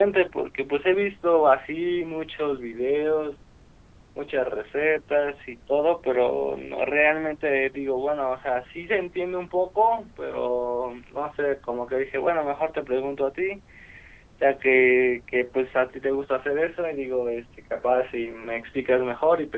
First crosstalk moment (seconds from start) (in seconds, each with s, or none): none